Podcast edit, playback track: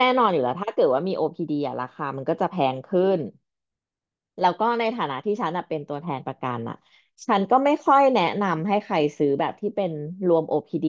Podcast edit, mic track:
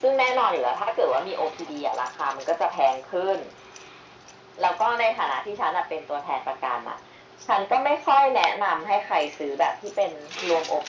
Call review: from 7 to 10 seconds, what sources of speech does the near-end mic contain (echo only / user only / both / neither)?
echo only